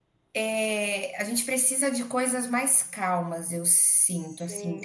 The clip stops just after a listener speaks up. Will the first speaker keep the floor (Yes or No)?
No